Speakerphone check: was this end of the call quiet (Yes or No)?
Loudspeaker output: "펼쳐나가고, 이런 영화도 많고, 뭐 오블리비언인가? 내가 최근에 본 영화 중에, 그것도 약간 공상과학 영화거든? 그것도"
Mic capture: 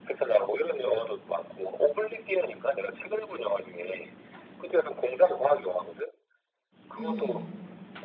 No